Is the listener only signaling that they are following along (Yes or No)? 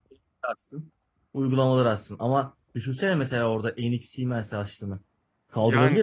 No